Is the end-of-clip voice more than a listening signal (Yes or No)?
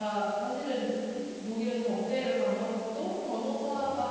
No